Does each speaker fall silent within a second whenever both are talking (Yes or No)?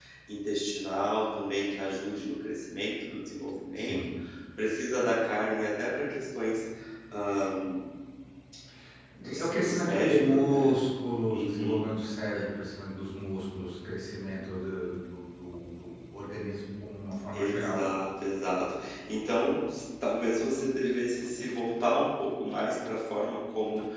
No